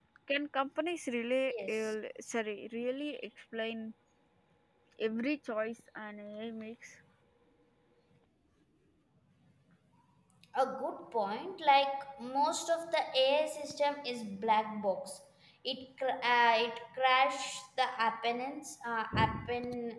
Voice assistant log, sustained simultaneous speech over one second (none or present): none